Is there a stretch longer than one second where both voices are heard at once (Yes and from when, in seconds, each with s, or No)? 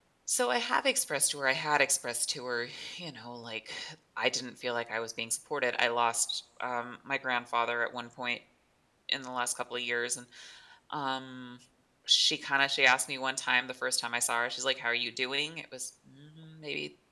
No